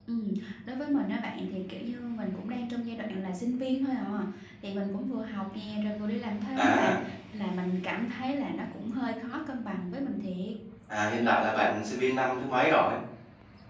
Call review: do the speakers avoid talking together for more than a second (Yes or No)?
Yes